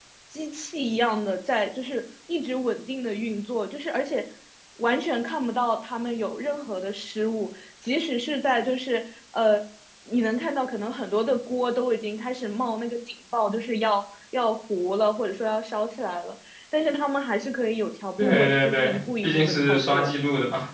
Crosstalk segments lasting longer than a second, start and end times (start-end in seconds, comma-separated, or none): 18.2-20.1